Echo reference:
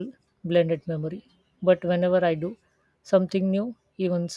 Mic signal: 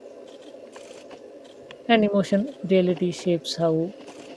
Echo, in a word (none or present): none